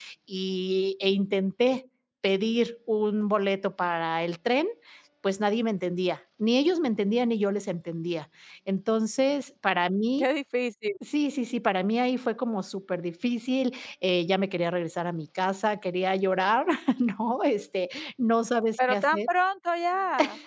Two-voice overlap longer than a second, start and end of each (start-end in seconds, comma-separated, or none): none